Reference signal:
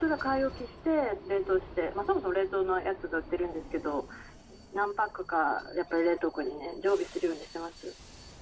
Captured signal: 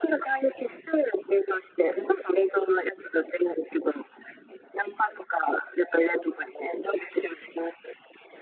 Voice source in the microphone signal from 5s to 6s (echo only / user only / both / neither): echo only